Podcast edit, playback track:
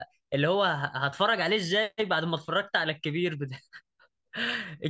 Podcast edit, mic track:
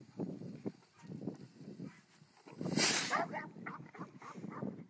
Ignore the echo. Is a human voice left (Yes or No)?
No